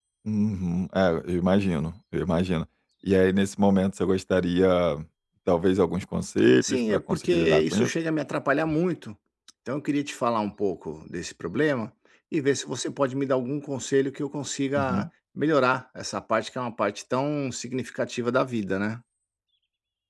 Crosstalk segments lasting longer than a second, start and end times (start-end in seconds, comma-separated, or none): 6.6-7.9